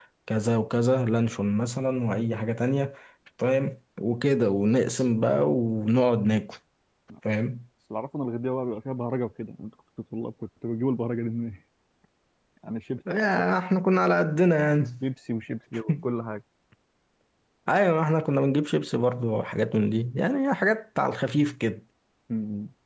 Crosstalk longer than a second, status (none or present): none